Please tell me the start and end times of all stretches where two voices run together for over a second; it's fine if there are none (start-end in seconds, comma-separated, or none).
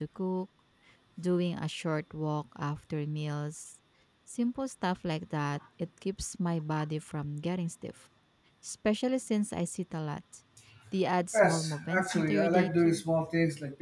11.3-13.0